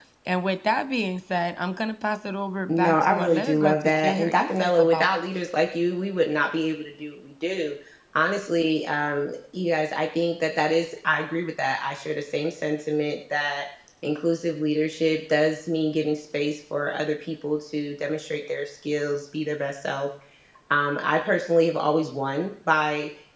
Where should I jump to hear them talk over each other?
2.7 s

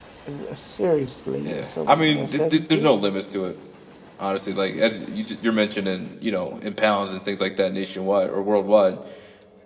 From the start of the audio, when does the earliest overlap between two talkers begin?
1.4 s

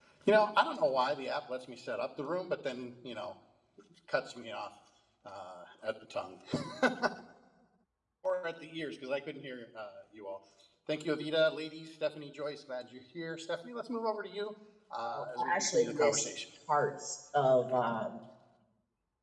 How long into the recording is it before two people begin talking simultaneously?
15.0 s

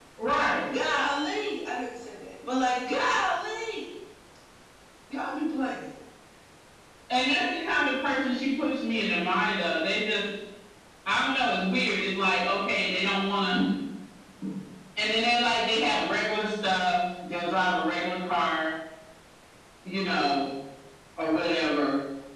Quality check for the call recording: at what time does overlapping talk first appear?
none

